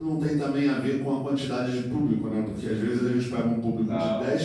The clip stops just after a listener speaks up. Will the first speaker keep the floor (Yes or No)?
Yes